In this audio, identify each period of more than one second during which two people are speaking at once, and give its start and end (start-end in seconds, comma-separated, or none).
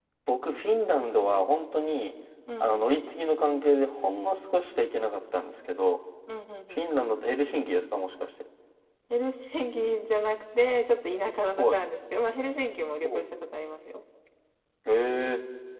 none